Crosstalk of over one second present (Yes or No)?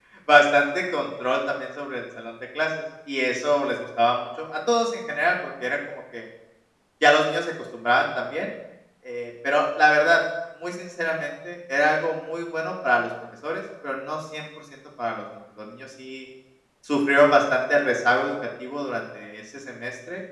No